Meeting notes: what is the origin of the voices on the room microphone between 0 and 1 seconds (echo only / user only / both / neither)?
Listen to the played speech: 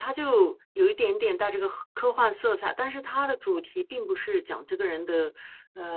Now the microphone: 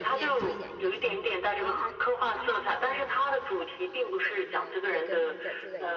both